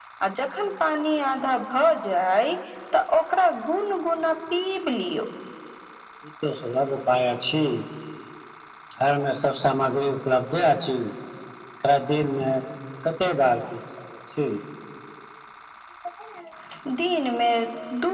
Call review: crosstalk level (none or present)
none